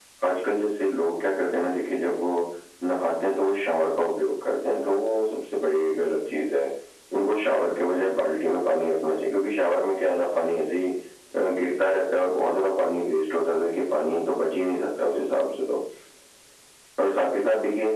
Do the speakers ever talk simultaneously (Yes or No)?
No